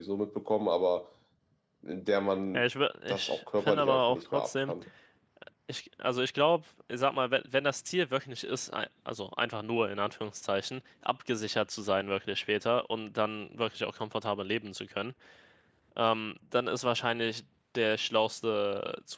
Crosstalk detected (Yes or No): Yes